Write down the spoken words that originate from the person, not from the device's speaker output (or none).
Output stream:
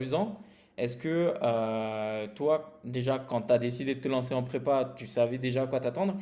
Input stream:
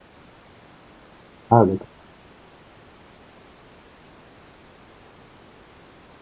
Ah, d'accord.